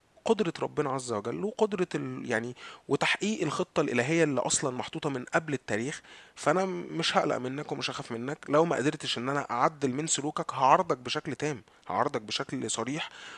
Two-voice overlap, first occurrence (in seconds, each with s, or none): none